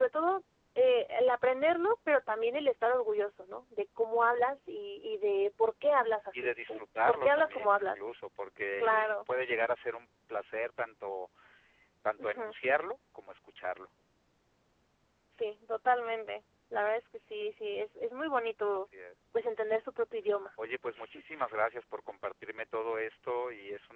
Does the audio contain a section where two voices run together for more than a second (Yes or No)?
Yes